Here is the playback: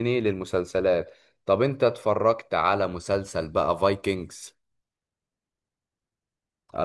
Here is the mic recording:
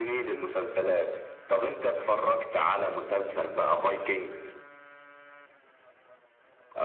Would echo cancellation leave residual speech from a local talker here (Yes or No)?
No